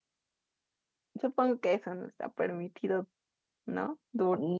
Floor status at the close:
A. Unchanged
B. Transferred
B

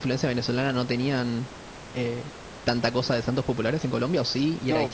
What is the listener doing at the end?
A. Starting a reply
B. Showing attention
A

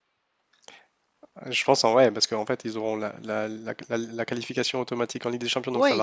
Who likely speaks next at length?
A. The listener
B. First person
A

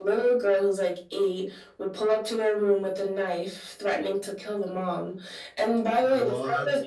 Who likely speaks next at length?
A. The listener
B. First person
B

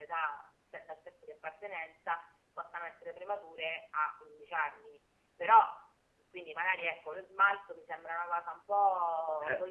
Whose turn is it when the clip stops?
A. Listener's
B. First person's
B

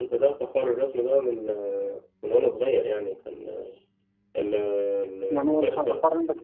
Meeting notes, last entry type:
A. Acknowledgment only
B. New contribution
B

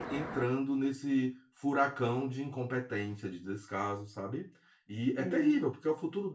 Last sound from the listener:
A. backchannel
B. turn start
A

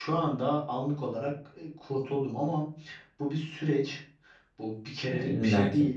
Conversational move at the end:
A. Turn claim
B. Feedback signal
B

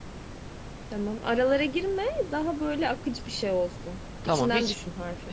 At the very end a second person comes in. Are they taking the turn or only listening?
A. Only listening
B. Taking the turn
B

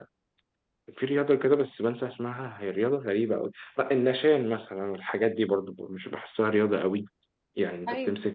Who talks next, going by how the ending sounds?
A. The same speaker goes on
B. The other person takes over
A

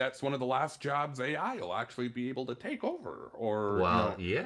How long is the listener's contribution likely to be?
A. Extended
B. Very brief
A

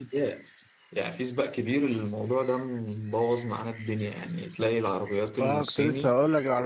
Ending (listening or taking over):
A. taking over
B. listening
A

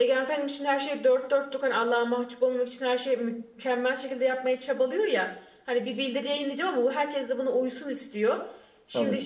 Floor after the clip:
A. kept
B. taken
A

